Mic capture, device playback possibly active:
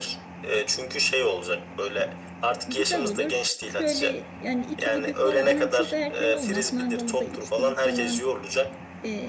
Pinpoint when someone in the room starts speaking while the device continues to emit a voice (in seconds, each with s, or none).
2.7 s